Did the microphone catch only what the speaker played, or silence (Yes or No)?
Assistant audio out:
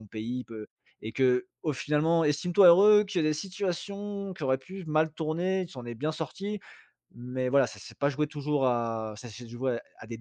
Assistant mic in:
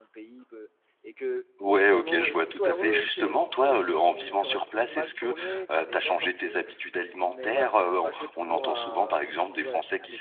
No